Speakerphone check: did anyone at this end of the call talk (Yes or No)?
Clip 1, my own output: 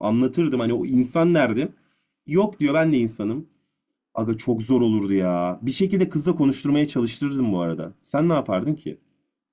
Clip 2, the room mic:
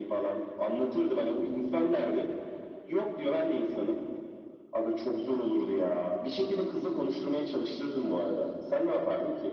No